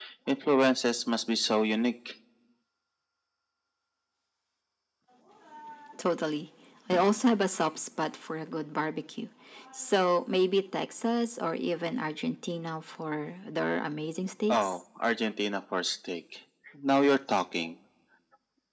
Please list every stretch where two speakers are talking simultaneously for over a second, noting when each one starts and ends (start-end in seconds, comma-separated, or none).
none